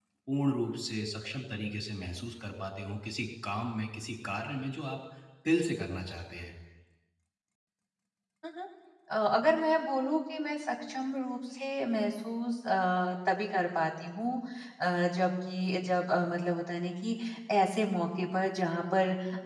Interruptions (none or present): none